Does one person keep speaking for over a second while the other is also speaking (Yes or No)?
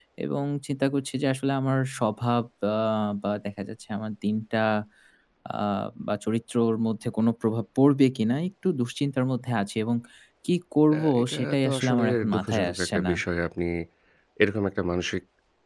Yes